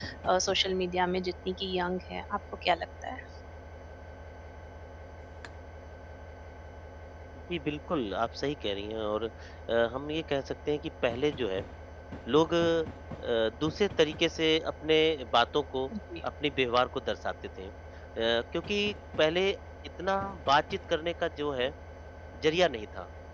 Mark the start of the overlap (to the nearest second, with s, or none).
none